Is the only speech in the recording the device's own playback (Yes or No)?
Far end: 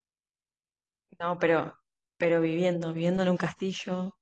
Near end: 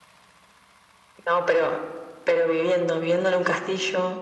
Yes